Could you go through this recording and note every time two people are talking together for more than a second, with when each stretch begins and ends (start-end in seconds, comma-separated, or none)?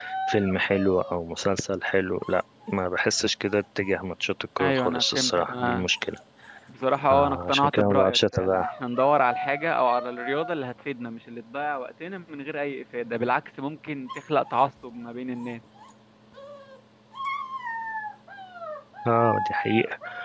4.6-5.8, 7.1-8.7